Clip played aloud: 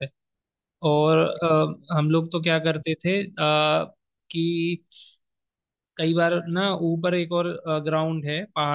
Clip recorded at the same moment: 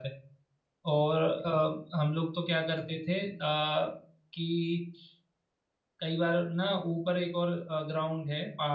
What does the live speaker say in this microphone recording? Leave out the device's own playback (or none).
none